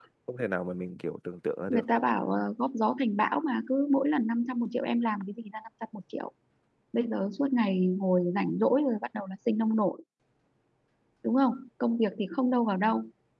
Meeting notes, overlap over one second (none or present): none